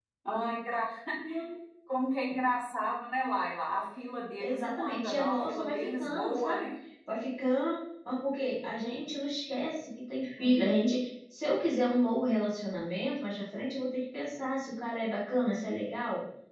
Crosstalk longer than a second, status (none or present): present